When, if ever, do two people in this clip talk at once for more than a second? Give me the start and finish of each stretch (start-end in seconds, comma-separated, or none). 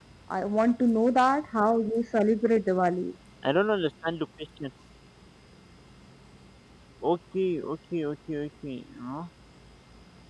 none